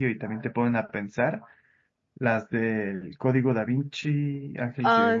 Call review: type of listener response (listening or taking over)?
listening